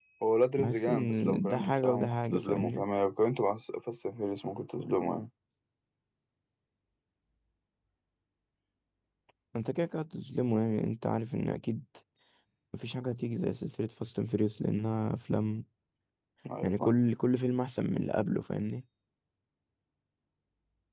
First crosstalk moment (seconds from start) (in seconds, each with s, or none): 0.6 s